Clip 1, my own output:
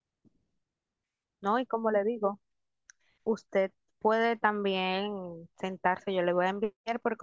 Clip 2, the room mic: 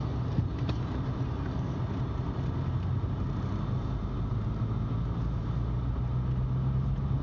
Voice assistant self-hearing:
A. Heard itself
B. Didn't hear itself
B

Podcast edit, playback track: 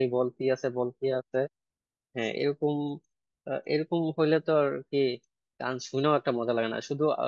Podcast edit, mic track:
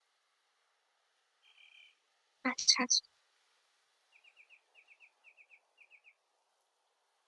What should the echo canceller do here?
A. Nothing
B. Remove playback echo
A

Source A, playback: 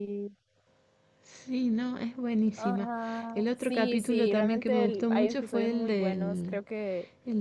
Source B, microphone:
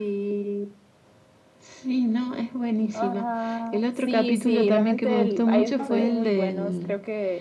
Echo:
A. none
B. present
B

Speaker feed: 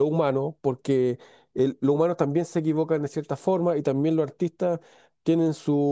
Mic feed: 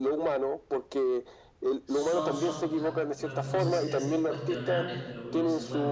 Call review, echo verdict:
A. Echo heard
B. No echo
A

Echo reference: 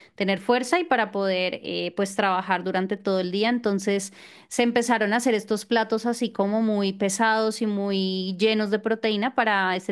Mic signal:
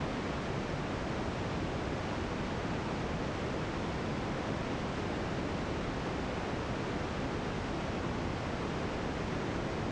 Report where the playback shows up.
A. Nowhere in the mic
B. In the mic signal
A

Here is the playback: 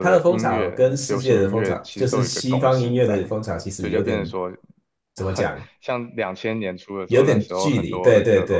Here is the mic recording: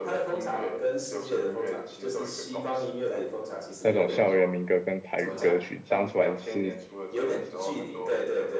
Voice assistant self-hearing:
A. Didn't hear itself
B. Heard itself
B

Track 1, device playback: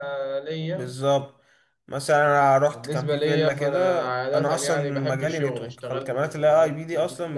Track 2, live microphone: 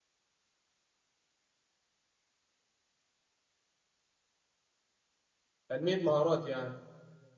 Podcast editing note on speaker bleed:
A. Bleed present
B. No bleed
B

